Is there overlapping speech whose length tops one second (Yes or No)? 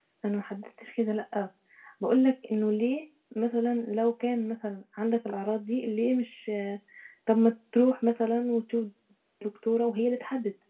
No